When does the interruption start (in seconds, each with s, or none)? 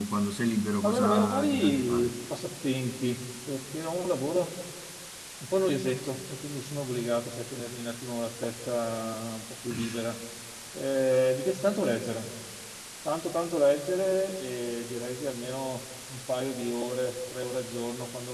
0.8 s